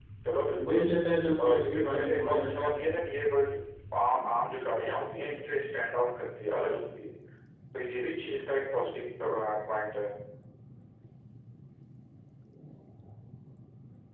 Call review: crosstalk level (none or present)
present